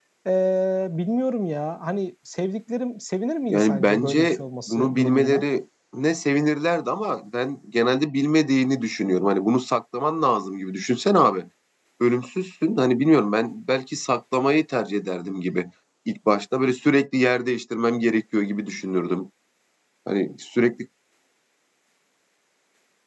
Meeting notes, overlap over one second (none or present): present